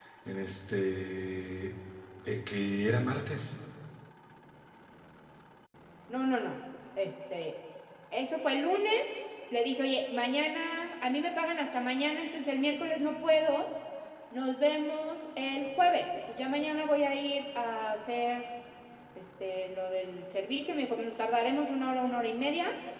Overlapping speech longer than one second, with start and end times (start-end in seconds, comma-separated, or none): none